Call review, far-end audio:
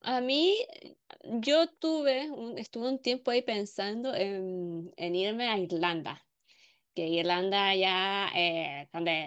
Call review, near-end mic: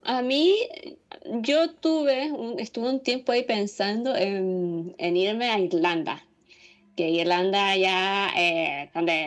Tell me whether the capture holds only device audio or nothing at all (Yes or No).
Yes